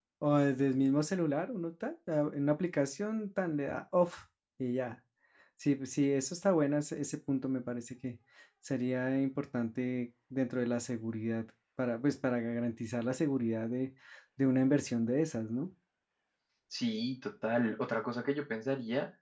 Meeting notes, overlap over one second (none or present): none